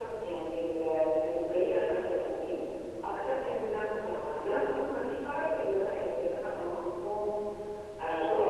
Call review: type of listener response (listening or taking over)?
listening